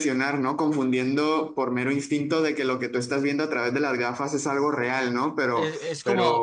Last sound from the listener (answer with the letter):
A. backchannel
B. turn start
B